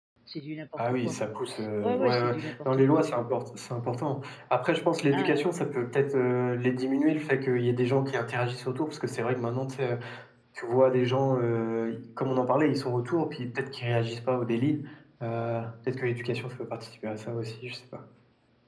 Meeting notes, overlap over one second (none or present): present